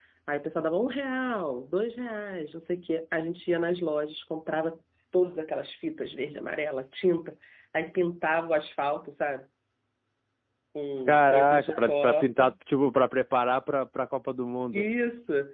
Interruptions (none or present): present